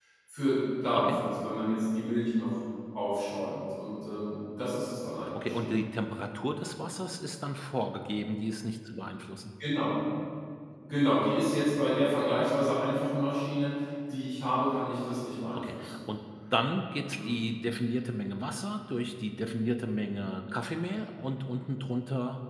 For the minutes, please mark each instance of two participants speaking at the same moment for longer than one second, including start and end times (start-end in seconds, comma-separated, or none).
none